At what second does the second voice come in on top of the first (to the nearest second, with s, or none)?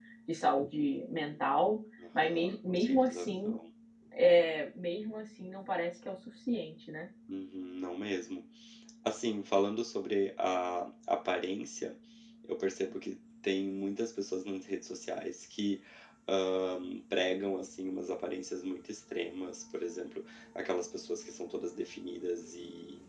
2 s